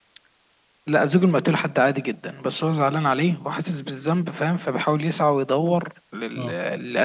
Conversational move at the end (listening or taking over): listening